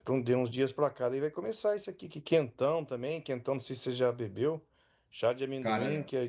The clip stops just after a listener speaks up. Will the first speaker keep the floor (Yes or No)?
Yes